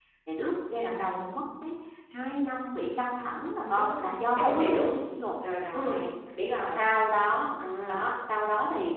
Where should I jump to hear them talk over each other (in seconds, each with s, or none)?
3.6 s